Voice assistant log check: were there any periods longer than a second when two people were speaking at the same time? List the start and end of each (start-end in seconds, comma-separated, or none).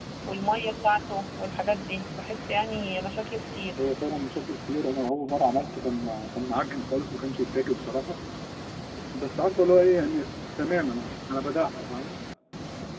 none